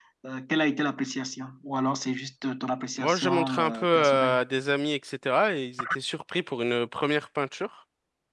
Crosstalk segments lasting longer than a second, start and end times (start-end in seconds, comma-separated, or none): 3.0-4.4